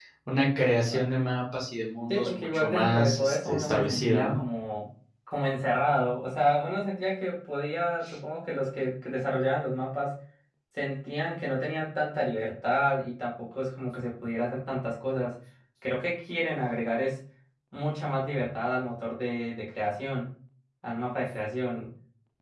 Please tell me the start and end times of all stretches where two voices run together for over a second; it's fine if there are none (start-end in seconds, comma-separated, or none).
2.1-4.4